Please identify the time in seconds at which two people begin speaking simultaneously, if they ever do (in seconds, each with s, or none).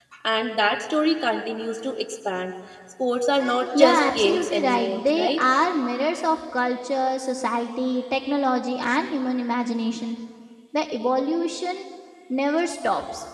3.7 s